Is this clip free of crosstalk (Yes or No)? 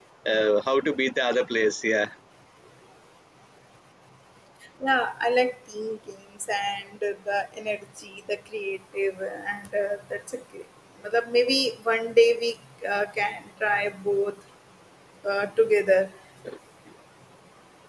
Yes